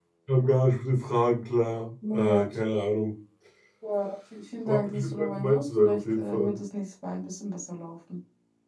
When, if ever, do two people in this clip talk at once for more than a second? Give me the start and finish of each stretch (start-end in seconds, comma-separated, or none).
4.7-6.5